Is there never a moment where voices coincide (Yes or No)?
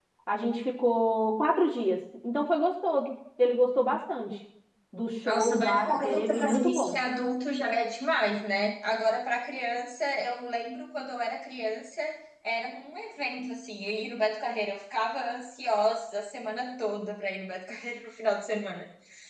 No